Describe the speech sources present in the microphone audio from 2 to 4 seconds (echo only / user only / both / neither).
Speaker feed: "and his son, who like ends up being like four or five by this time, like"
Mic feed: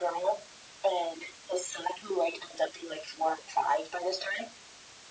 echo only